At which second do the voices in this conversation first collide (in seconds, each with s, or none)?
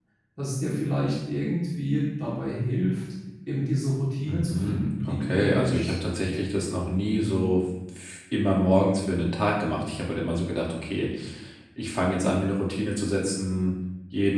4.3 s